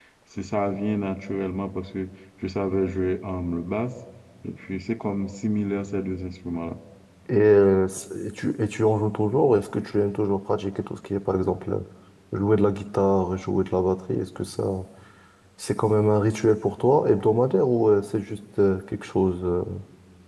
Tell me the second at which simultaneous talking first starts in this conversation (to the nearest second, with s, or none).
none